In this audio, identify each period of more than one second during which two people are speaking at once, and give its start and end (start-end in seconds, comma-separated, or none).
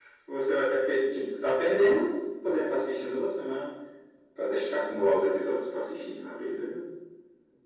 none